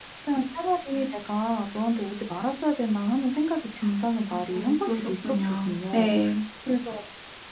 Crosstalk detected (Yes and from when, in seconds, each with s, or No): Yes, from 4.5 s